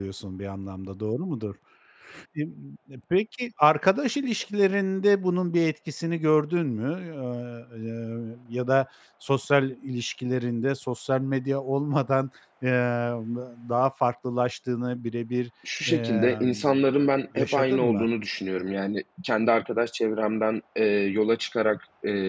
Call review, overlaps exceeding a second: present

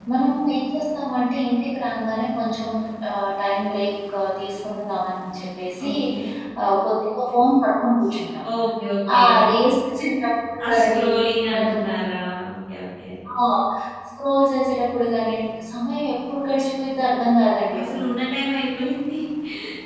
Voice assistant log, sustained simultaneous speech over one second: none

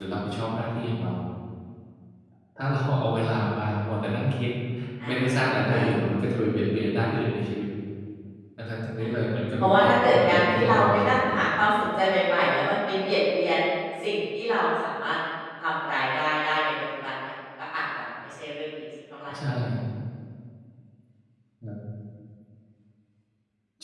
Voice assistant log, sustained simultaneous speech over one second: present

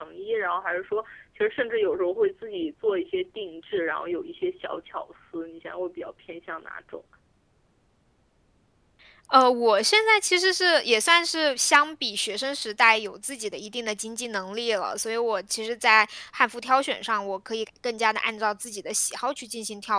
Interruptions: none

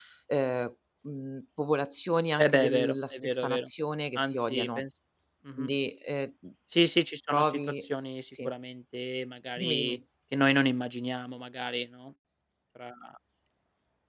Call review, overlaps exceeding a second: present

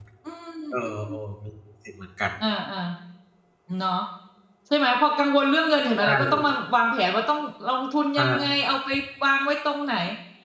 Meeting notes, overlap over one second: none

